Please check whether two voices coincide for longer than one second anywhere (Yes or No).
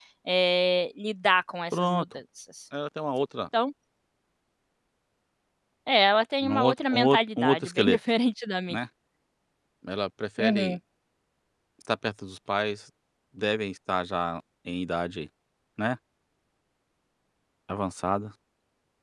Yes